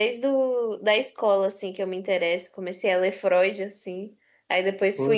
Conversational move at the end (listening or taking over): listening